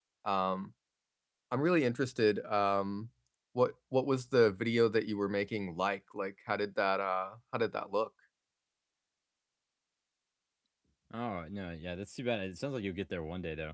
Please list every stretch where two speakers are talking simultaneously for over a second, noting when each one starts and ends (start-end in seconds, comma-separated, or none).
none